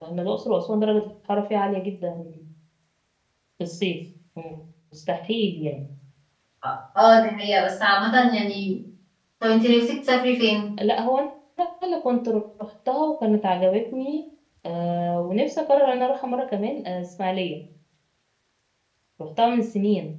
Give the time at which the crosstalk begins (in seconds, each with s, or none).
none